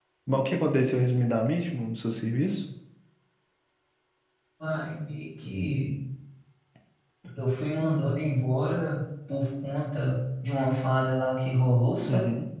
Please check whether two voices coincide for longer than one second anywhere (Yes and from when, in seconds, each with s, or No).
No